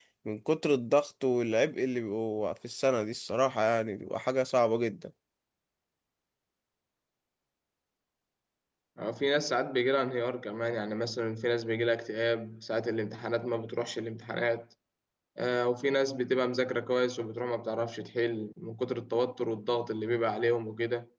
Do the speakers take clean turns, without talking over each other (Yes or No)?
Yes